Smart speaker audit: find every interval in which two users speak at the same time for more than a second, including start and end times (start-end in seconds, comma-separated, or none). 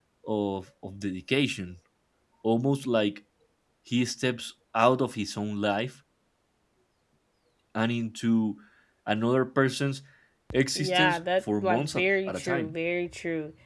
10.8-12.7